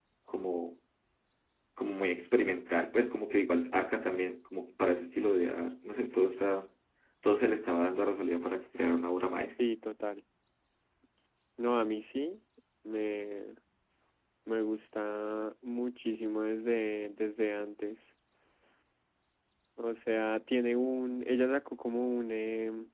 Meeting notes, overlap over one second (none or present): none